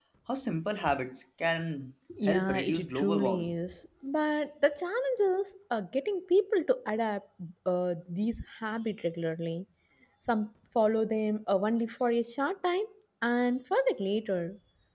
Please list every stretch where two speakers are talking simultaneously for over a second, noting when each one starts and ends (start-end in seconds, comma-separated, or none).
2.3-3.5